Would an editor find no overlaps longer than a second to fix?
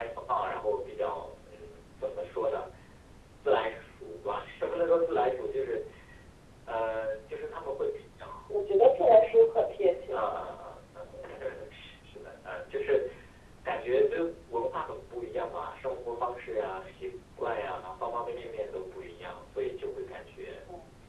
Yes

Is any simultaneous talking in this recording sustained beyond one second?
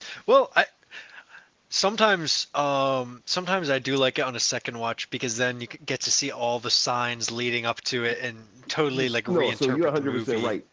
Yes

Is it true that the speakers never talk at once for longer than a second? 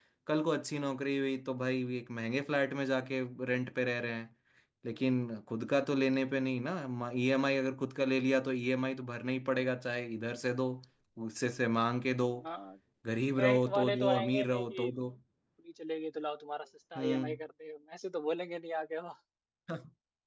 No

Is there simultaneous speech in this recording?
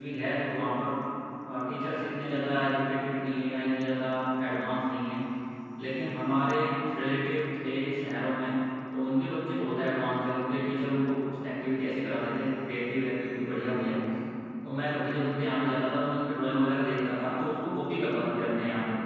No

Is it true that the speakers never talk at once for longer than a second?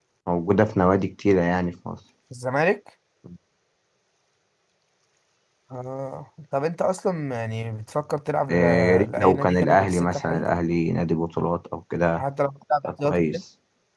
No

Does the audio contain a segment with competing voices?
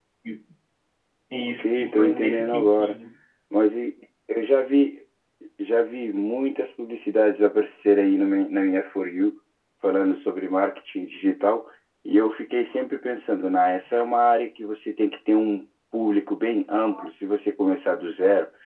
Yes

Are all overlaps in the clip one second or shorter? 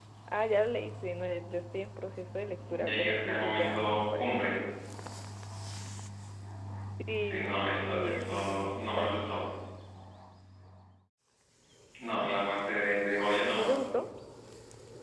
No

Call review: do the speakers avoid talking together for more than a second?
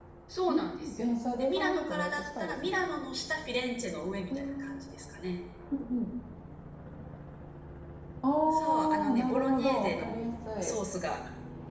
No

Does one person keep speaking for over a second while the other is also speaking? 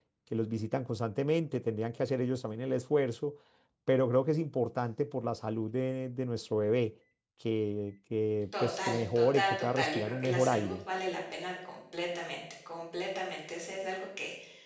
Yes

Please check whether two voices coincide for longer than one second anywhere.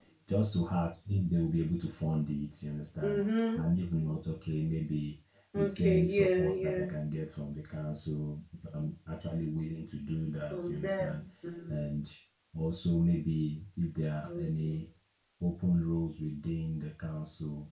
Yes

